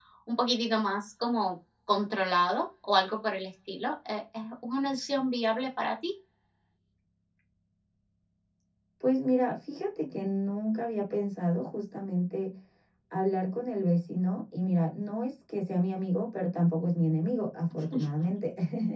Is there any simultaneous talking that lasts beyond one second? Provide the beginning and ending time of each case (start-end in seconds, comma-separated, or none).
none